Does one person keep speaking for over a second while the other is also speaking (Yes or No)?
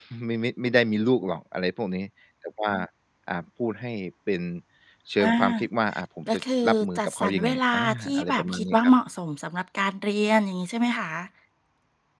Yes